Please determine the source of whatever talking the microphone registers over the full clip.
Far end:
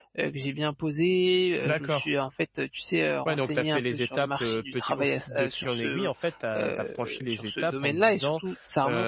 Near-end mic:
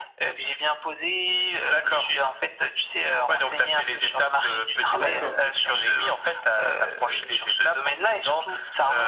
both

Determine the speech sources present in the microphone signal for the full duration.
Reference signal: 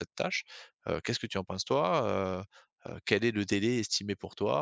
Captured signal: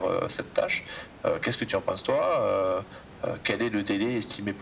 echo only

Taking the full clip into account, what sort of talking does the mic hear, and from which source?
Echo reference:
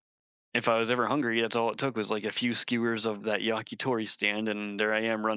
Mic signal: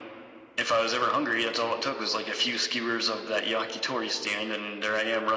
echo only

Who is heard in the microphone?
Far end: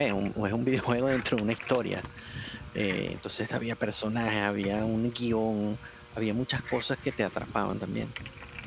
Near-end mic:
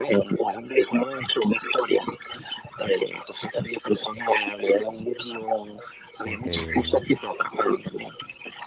both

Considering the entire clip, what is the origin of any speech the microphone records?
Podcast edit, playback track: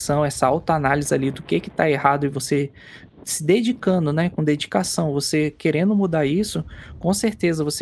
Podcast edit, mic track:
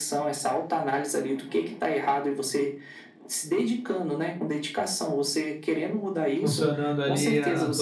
both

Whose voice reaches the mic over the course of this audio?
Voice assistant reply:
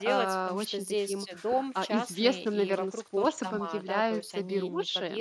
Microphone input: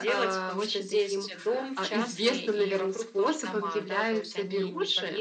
echo only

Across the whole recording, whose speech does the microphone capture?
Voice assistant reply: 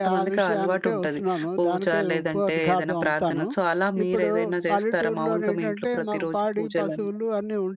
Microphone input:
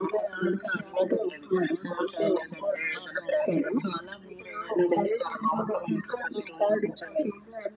echo only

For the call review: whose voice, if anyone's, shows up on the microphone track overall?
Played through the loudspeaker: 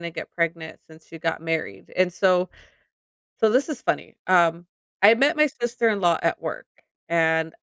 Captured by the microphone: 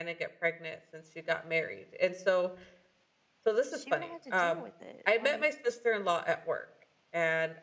both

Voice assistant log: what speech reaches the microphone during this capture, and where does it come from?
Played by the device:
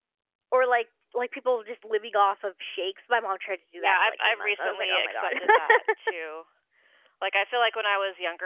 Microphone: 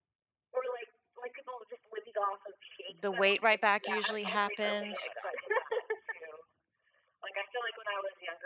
both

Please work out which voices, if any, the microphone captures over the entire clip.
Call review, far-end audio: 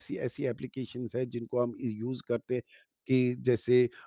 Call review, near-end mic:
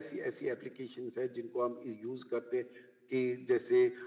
echo only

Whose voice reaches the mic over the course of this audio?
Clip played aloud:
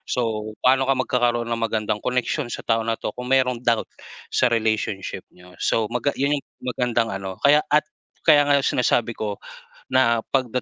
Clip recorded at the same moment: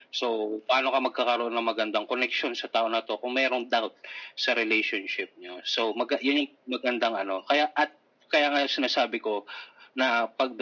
echo only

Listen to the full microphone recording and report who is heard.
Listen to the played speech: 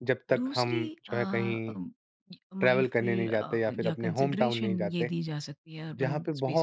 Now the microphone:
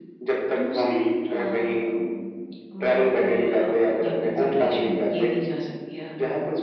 echo only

